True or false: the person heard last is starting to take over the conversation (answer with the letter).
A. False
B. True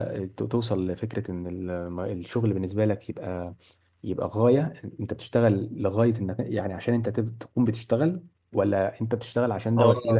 B